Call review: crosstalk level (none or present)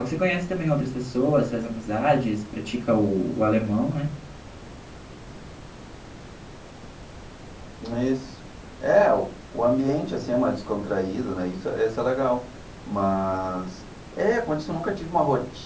none